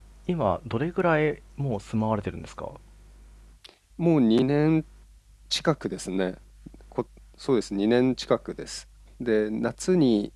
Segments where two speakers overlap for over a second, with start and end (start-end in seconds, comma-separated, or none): none